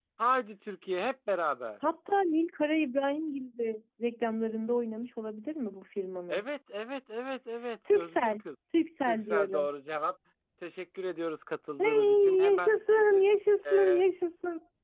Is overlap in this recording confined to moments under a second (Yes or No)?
No